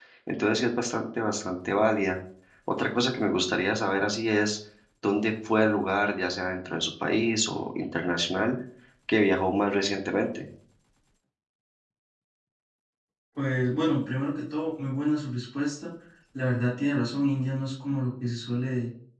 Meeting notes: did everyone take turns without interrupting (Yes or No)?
Yes